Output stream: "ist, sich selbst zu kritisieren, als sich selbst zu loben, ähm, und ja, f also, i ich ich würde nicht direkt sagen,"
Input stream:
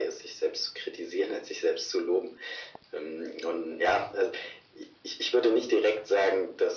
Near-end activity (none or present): none